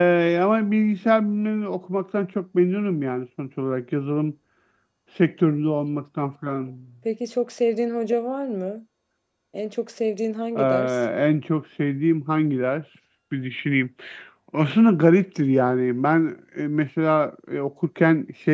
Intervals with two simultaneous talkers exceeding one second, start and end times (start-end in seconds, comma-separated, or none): none